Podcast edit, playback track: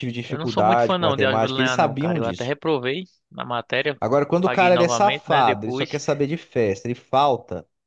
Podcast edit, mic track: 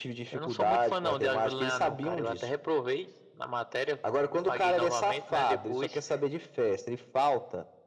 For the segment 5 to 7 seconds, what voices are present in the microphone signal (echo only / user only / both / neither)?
echo only